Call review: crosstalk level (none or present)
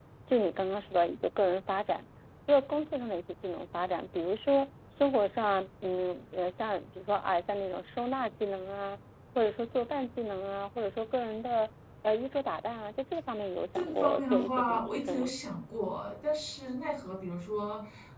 present